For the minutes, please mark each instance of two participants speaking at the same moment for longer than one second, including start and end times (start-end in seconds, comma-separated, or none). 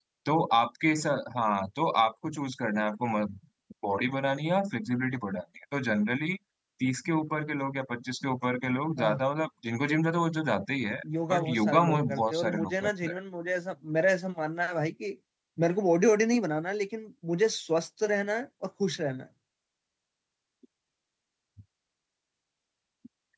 11.3-13.2